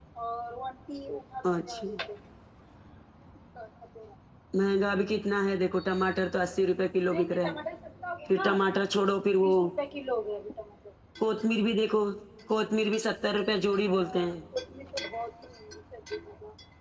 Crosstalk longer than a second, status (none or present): none